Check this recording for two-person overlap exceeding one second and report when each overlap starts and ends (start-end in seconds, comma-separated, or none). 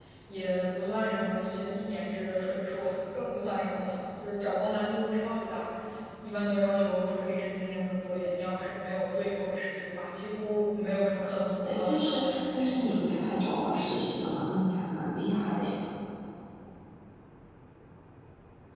11.6-12.8